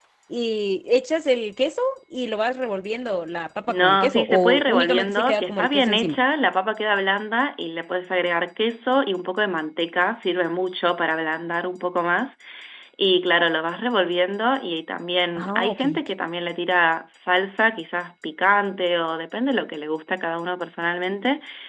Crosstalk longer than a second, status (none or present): present